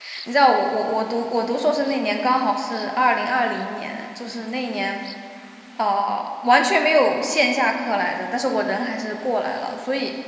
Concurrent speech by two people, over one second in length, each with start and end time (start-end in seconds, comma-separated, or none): none